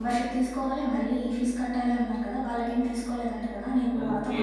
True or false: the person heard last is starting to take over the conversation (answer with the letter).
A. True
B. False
A